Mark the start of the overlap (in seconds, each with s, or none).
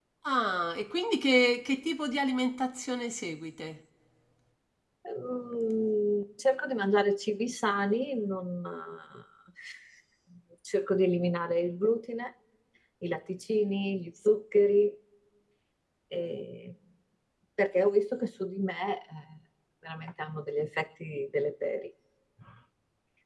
none